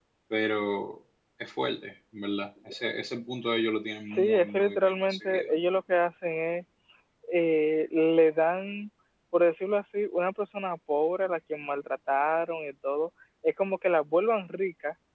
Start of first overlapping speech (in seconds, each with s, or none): 4.1 s